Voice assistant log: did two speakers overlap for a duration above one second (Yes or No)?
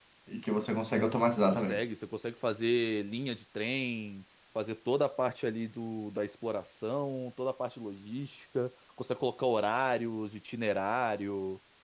No